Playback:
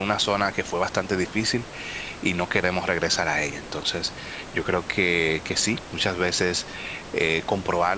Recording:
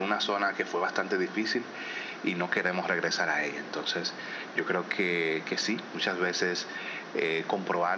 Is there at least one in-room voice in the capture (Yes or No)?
No